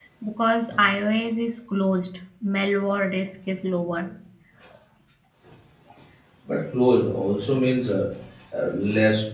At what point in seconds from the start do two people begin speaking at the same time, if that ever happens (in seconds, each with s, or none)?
none